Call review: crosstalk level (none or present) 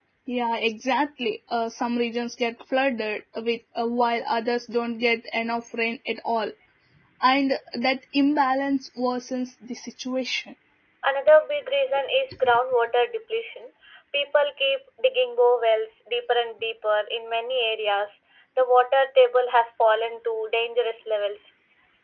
none